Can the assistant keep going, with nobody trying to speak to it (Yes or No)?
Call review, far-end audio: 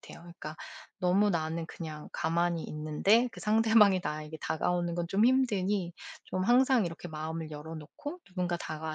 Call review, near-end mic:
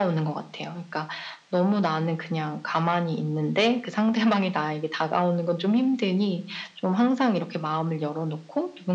Yes